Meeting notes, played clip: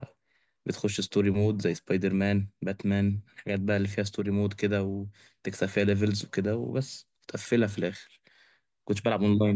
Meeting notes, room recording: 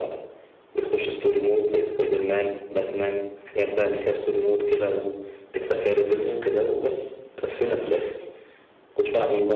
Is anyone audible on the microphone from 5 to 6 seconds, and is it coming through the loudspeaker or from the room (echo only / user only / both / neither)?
echo only